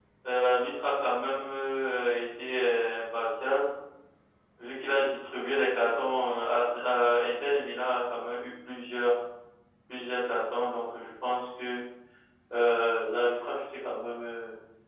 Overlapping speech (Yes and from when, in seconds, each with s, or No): No